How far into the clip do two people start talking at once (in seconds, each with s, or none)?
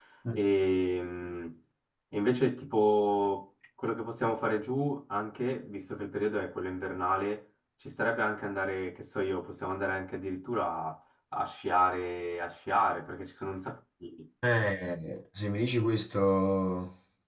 none